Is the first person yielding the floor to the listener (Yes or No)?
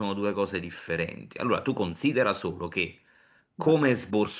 No